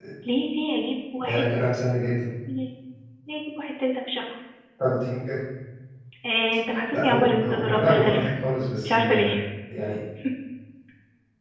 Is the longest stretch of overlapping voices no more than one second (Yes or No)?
No